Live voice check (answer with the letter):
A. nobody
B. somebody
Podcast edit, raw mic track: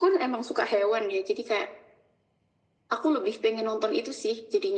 A